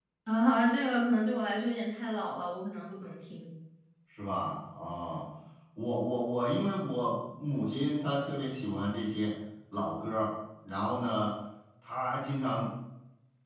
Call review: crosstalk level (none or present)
none